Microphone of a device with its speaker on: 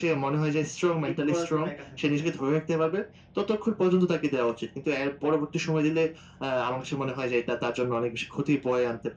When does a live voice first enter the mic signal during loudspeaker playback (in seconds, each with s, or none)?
1.0 s